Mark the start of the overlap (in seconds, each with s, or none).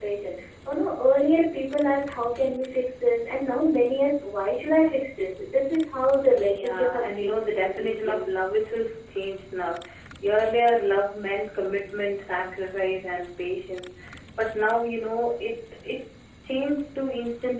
6.5 s